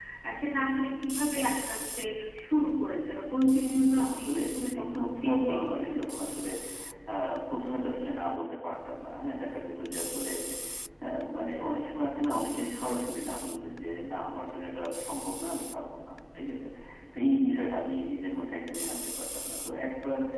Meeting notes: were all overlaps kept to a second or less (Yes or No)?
No